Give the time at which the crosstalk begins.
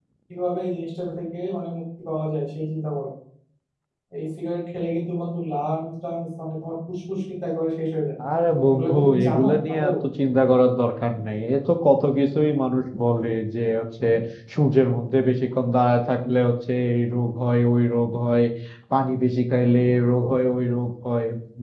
8.7 s

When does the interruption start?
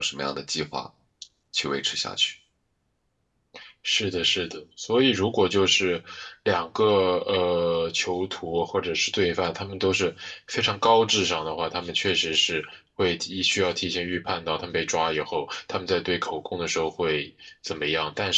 none

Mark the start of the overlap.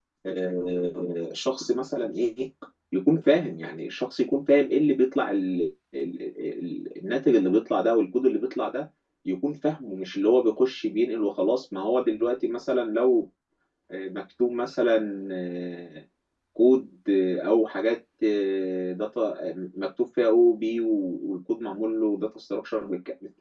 none

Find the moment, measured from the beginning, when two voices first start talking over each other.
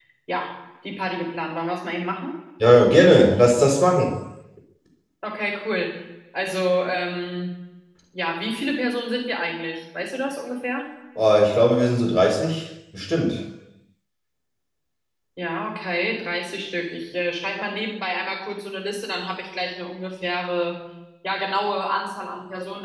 none

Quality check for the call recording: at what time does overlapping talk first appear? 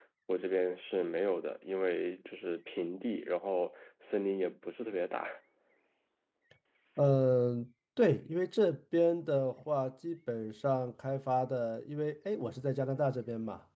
none

